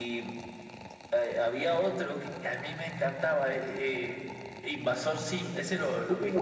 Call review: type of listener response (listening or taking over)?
taking over